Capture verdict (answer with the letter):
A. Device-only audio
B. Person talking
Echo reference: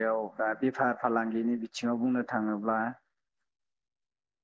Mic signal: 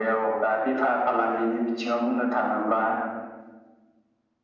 A